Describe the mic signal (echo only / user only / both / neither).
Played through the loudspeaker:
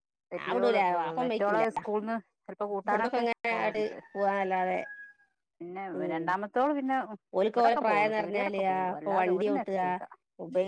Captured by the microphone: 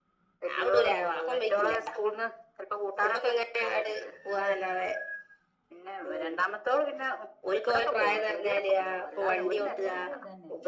both